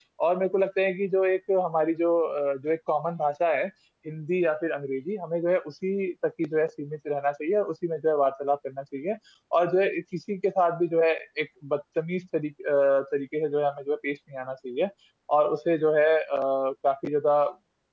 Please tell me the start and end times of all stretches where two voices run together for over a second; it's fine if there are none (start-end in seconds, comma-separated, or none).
none